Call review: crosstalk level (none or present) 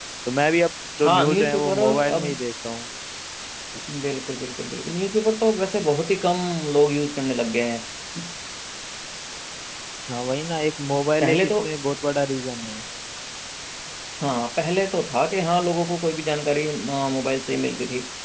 present